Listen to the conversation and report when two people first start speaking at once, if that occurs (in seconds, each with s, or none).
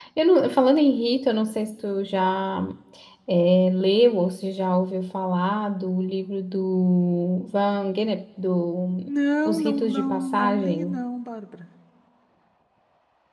9.4 s